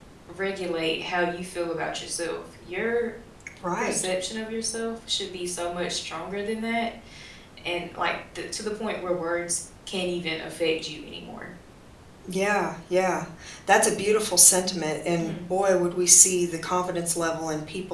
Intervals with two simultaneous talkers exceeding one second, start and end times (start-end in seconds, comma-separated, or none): none